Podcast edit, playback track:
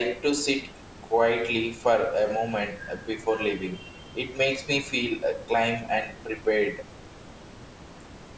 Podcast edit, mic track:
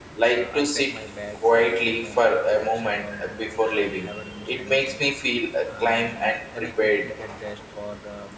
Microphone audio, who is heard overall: both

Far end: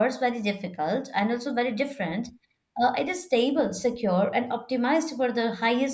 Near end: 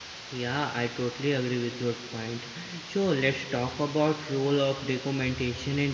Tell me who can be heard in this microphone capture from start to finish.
user only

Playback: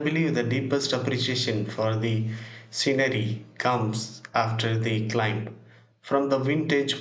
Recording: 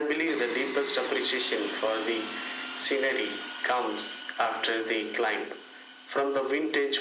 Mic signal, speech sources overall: echo only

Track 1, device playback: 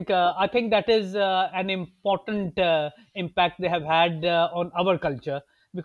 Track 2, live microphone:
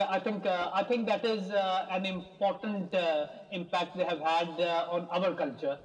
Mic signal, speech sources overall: echo only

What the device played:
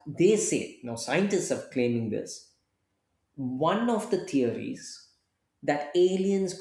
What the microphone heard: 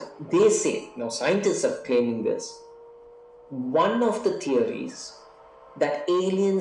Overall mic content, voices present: echo only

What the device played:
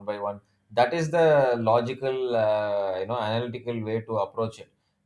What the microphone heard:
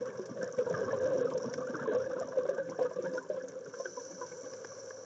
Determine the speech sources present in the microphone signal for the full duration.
neither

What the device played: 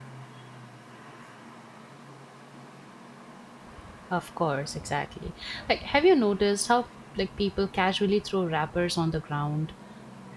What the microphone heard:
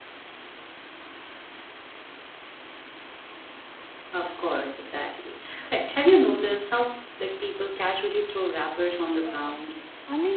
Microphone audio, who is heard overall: both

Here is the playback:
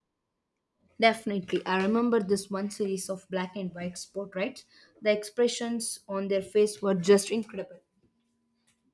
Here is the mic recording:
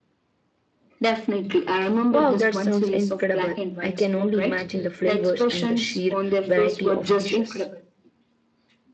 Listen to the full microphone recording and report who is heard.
both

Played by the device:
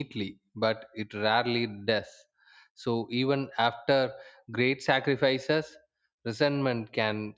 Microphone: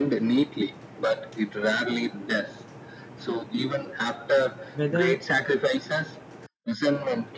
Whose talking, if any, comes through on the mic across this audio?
both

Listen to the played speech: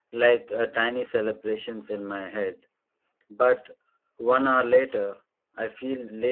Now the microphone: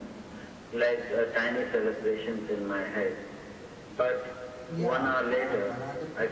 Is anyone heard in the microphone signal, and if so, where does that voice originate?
both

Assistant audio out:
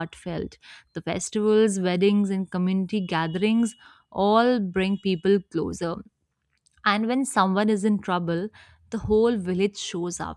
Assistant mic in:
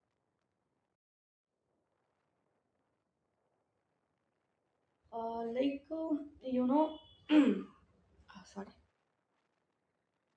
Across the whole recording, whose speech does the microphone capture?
user only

